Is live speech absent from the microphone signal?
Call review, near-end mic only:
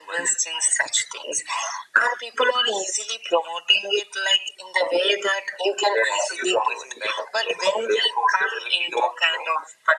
Yes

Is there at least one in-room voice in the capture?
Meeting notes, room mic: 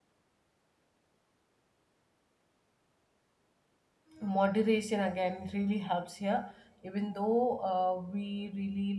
Yes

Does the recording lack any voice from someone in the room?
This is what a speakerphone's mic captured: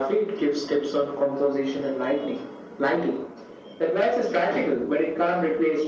Yes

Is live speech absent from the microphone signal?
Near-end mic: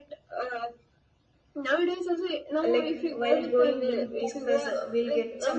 No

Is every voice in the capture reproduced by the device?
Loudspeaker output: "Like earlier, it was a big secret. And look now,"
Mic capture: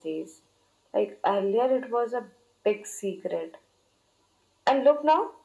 Yes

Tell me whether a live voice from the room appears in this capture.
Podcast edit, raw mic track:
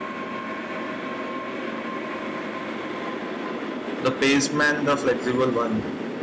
Yes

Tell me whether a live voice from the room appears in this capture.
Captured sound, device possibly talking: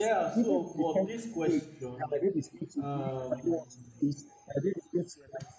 Yes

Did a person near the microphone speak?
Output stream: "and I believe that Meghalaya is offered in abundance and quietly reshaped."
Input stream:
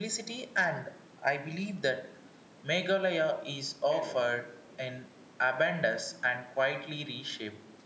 Yes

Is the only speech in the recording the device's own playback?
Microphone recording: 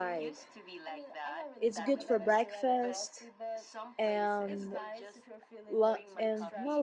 No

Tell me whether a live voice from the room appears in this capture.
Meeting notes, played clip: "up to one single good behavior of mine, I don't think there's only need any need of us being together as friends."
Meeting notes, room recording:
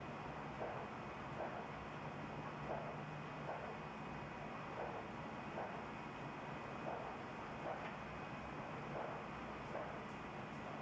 No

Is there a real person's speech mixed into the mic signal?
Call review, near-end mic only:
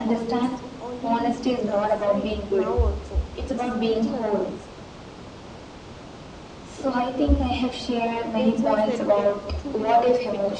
Yes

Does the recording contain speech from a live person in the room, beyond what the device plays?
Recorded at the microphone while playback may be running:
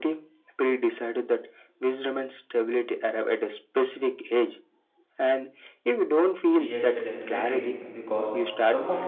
Yes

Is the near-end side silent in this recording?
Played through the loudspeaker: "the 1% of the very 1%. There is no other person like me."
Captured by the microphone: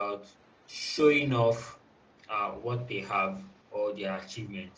No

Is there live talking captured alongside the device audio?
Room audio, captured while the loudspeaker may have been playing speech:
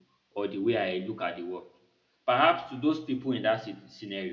Yes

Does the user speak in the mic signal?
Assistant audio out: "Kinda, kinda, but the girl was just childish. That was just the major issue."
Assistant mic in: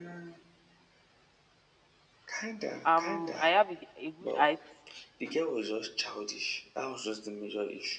Yes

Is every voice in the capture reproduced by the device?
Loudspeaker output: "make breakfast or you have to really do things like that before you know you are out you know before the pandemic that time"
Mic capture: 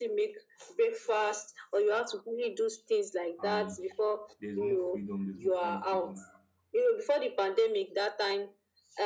No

